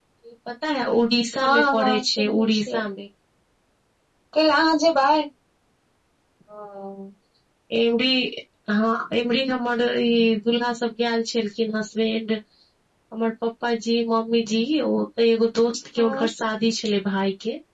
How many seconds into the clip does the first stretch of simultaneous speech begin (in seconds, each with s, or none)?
1.4 s